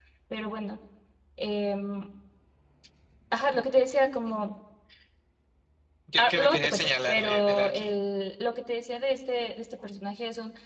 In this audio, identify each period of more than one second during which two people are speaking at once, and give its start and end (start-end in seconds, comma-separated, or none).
6.2-7.9